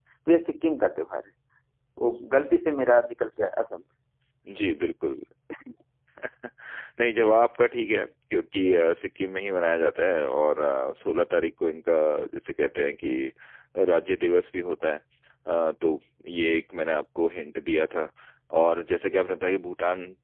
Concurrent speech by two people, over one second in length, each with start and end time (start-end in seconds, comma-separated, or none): none